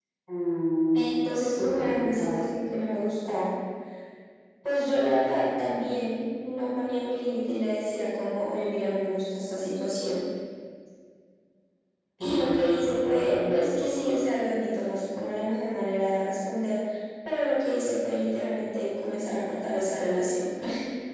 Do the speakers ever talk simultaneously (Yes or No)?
Yes